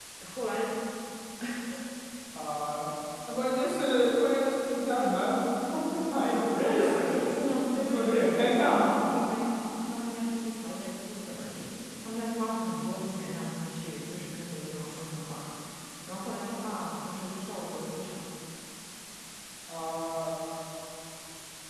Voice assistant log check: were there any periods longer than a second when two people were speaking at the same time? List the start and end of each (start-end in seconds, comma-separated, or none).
6.7-9.0